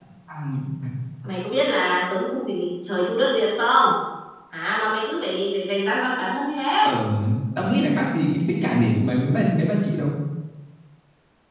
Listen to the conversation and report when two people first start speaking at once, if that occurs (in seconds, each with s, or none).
none